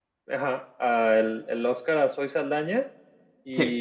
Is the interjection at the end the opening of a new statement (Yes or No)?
No